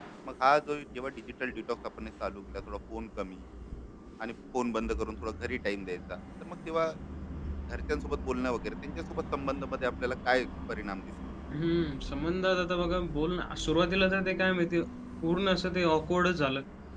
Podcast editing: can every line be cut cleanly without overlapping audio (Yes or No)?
Yes